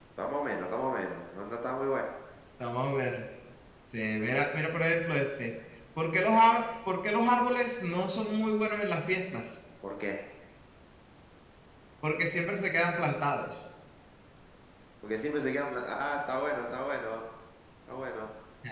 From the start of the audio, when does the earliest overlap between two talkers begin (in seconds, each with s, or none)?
none